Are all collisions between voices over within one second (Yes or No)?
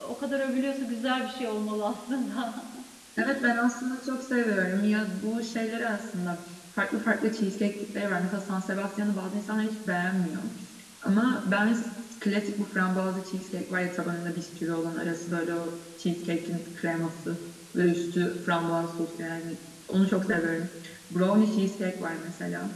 Yes